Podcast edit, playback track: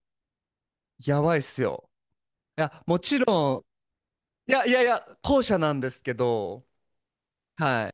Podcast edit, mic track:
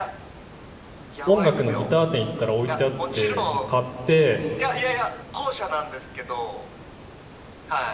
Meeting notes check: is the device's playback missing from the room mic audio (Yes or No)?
No